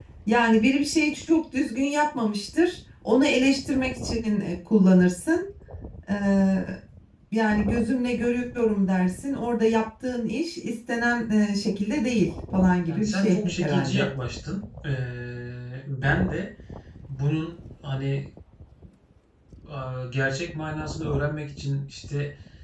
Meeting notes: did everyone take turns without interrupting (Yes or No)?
No